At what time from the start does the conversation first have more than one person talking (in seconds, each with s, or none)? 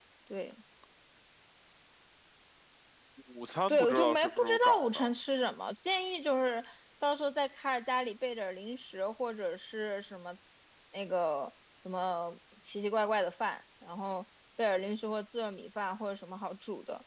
3.7 s